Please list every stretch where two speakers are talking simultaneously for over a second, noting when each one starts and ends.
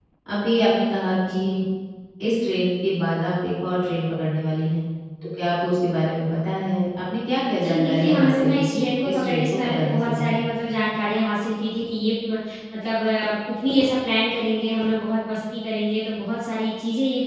7.6-10.5

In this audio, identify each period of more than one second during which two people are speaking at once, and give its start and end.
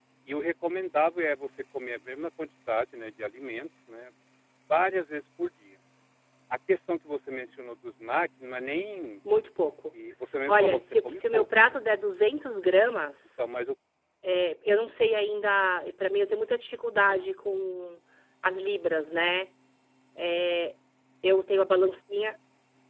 10.5-11.8

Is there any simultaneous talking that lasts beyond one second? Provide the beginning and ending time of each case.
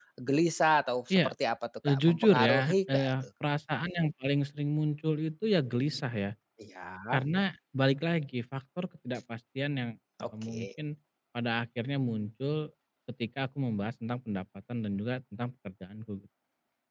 1.9-3.1

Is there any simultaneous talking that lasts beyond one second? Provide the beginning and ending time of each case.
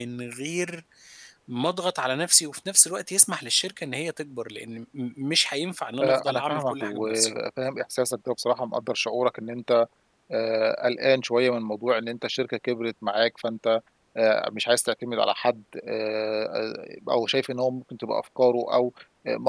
6.0-7.3

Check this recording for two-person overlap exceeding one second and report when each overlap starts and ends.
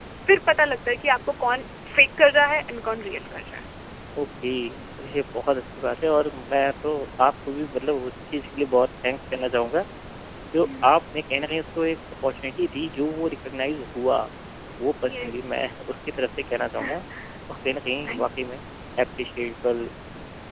none

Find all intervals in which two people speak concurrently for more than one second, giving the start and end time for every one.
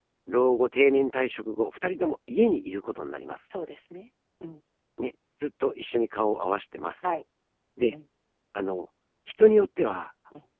none

